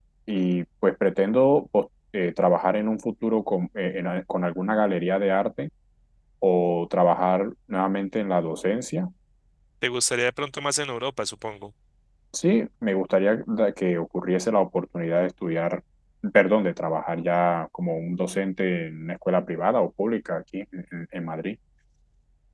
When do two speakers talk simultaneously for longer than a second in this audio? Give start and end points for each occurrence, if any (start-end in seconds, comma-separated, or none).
none